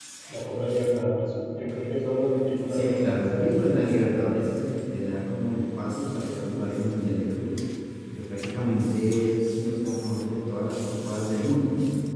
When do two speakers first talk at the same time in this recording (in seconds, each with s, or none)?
2.7 s